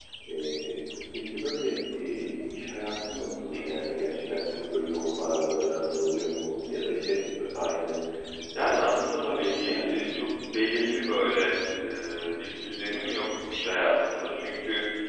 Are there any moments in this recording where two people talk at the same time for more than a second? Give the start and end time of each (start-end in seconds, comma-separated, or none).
8.6-10.1